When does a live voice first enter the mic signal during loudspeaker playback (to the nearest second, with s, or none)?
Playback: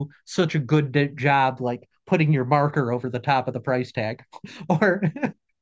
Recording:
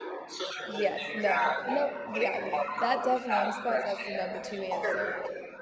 1 s